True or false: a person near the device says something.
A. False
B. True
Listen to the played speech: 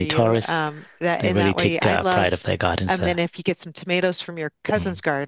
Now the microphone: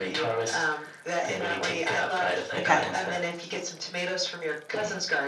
B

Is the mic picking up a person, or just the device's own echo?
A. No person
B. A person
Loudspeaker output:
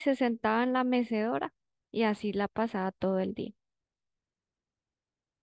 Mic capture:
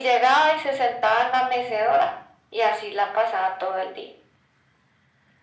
A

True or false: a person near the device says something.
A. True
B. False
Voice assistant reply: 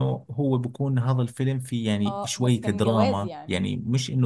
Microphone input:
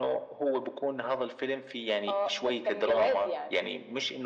B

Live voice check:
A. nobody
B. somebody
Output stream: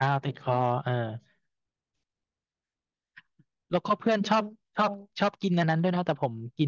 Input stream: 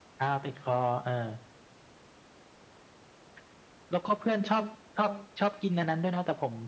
A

